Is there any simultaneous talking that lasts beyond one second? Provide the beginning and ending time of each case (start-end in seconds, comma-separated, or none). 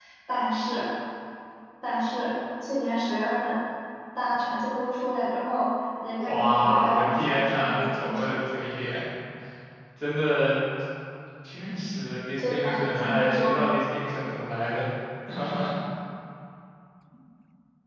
6.1-8.4, 12.4-13.7